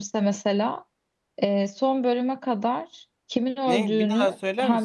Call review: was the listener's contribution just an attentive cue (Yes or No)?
No